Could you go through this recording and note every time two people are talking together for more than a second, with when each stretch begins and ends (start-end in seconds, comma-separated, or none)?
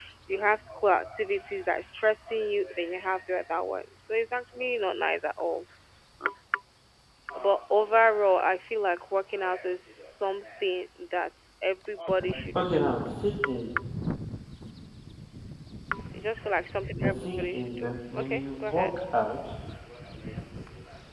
17.0-18.9